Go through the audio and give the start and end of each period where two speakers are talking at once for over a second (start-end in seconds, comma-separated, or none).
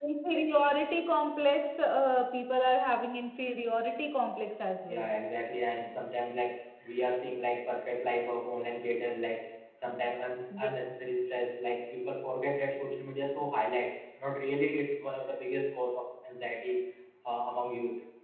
none